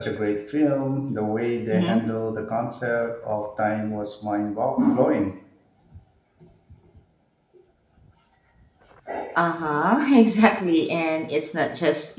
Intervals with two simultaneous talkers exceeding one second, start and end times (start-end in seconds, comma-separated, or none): none